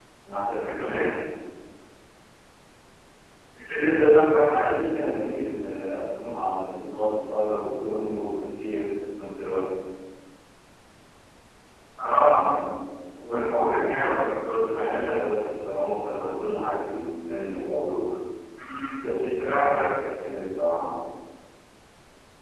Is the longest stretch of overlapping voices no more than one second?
No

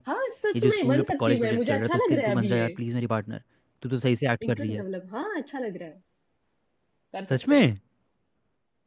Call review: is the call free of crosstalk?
No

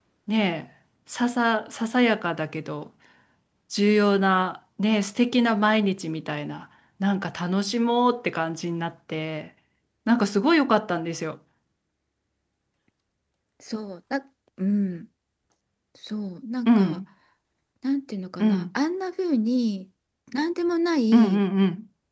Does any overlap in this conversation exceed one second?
No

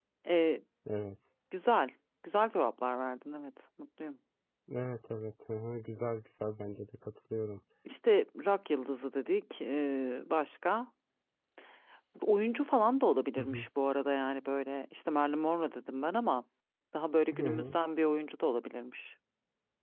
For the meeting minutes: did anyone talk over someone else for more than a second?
No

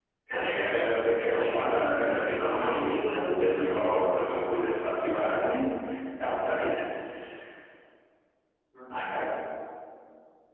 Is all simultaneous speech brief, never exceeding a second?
No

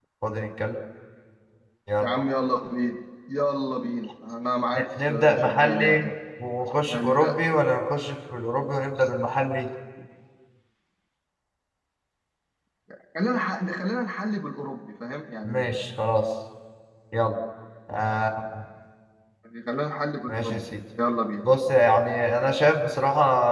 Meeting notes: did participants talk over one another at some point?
Yes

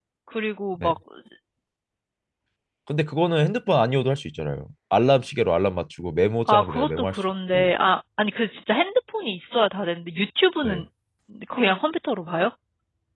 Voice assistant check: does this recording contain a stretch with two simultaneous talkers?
Yes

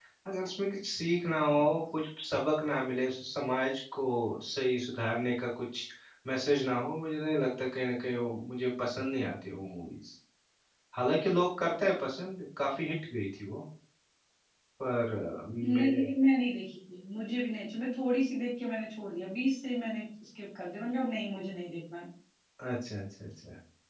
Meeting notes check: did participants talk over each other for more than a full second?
No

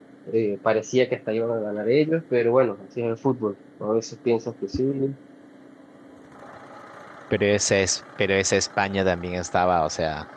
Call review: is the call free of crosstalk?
Yes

